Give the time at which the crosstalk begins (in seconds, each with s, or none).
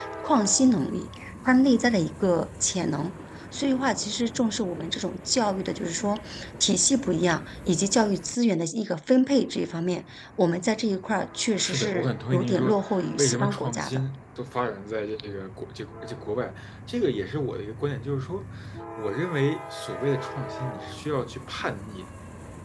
11.6 s